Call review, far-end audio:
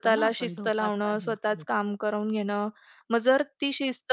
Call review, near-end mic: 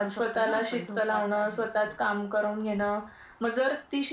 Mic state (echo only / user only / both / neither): echo only